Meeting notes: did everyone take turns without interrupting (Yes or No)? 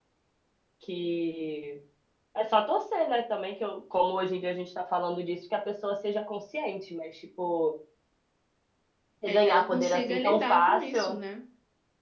No